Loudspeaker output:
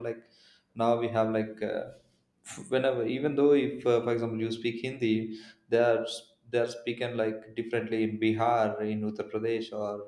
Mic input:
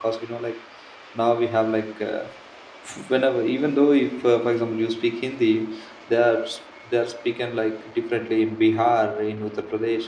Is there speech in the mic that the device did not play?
No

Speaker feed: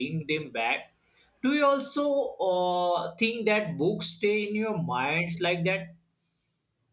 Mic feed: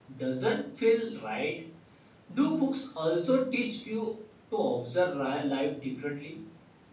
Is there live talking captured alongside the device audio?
Yes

